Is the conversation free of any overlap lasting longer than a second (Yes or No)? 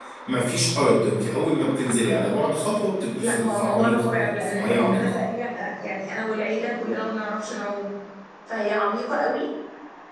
No